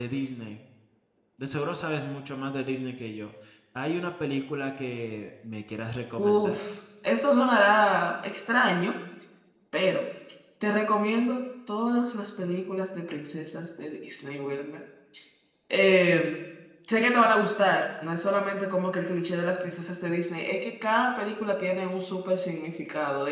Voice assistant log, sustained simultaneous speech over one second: none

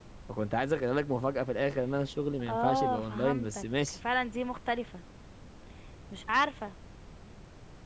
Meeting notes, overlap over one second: present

